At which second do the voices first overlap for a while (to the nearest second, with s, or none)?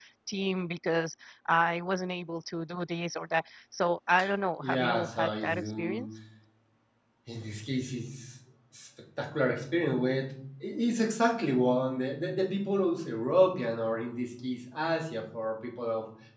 5 s